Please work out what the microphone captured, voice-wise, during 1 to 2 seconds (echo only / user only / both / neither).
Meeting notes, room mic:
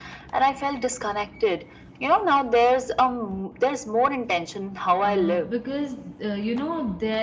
echo only